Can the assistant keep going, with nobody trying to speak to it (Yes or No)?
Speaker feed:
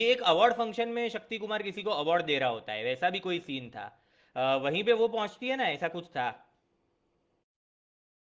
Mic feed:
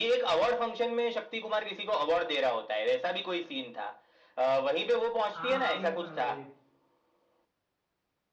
No